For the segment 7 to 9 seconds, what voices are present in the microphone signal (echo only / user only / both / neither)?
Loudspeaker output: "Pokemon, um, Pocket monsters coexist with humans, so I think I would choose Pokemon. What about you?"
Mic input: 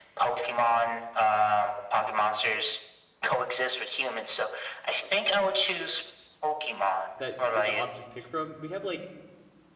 both